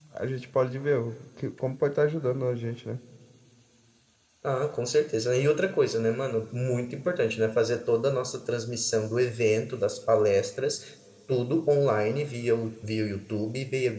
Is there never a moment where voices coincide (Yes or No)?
Yes